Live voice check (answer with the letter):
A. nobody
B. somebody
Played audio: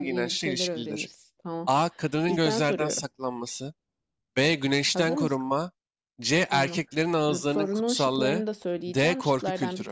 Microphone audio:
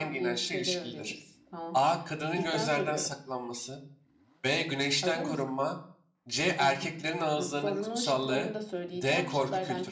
A